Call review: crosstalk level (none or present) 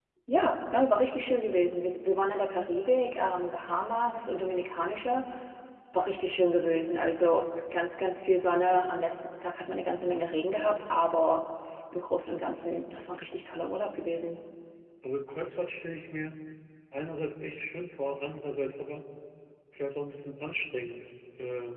none